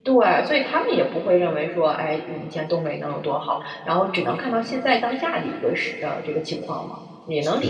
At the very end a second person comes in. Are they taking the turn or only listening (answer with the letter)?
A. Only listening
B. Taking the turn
B